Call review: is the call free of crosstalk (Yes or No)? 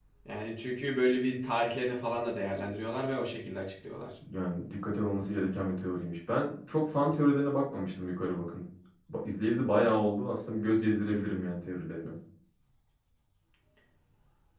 Yes